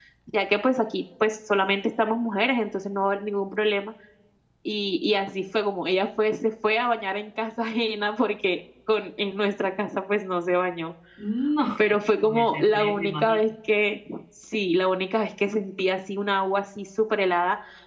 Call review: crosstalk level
present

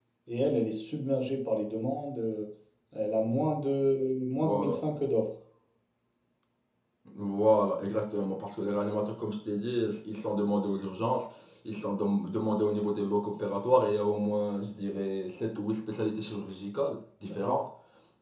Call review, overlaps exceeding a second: none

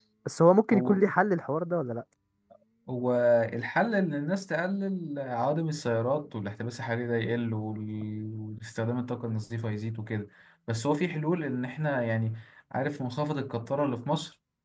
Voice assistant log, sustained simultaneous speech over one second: none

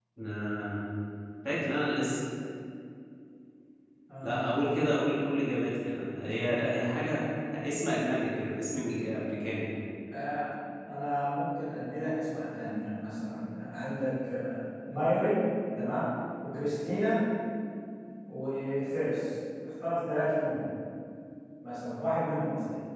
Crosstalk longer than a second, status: none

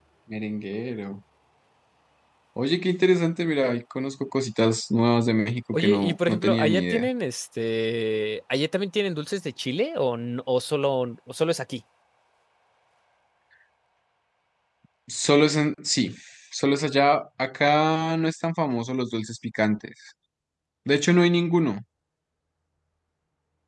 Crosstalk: present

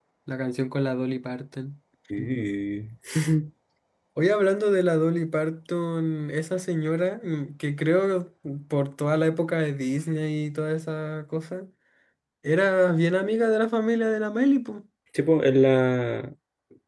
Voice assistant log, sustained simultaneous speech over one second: none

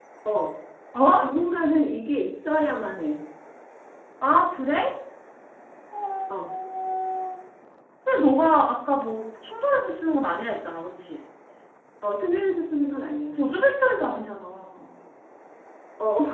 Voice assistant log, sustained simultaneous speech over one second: none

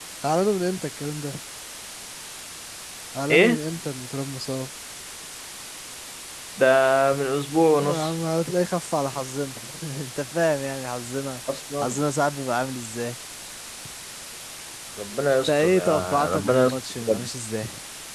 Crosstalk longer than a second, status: present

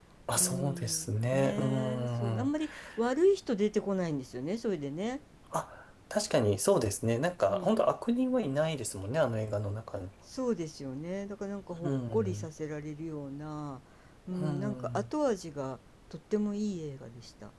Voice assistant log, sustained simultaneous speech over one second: present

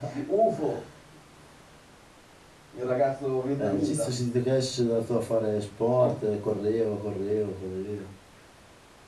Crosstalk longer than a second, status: none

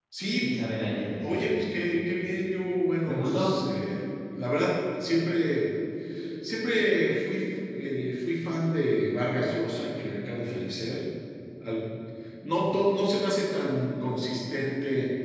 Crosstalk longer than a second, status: none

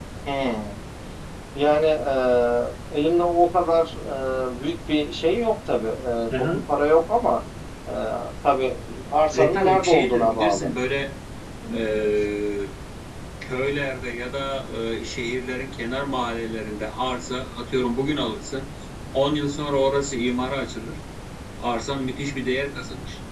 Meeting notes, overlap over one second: present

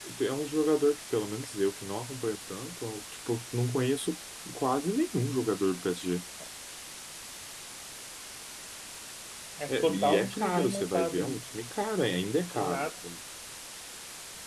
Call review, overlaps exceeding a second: present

